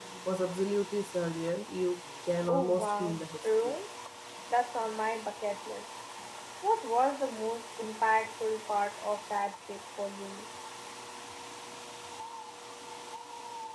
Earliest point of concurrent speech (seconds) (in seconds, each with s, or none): 2.4 s